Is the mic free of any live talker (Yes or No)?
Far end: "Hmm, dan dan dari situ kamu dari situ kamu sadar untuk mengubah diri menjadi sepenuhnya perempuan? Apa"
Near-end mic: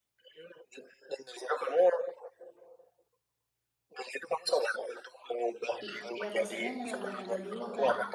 No